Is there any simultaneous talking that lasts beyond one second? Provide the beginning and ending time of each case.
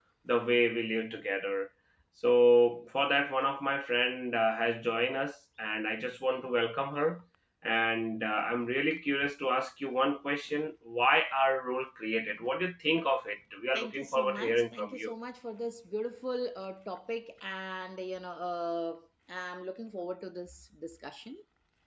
13.7-15.1

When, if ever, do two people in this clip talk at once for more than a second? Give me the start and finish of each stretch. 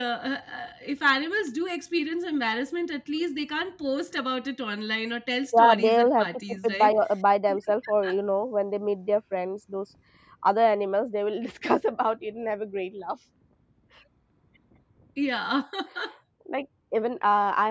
5.6-6.9

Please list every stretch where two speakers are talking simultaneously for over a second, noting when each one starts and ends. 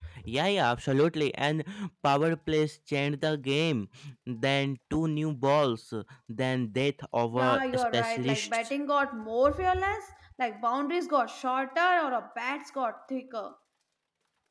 7.3-8.6

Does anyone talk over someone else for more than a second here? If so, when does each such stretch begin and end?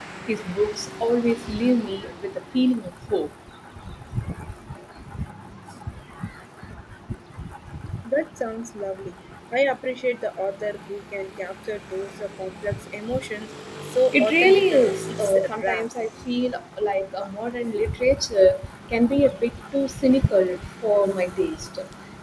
14.1-15.9

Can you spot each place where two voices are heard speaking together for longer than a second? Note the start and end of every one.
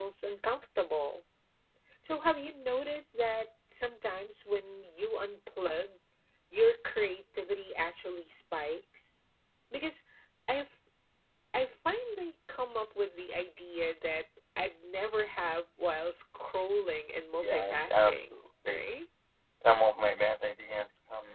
17.4-18.8

